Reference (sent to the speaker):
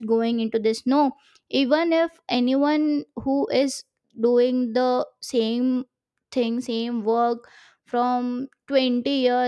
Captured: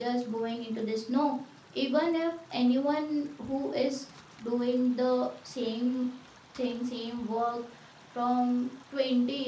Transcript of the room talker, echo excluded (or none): none